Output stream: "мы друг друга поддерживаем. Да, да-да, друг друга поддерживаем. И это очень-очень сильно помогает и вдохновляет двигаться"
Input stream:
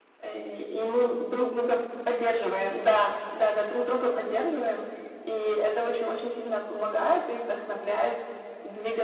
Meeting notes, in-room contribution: none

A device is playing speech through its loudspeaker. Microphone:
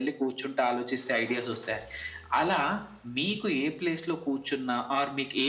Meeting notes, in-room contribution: none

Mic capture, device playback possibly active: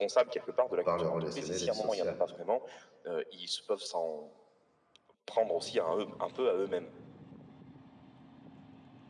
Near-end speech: present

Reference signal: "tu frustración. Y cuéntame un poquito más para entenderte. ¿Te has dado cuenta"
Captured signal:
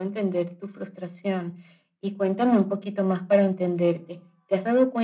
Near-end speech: none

